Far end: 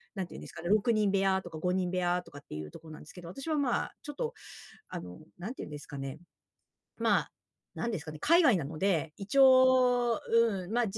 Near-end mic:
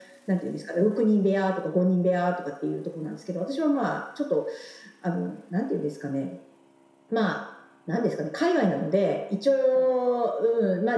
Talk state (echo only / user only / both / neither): echo only